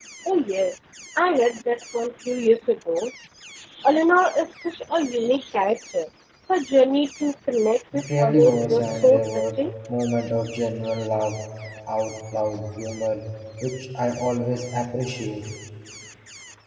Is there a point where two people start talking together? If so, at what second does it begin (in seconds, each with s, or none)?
7.9 s